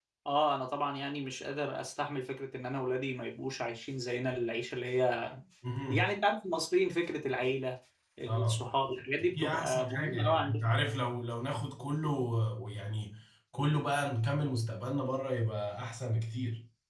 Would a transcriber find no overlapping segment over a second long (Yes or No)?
No